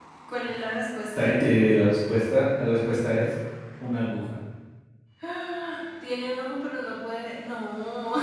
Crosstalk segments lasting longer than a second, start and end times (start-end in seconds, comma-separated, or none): none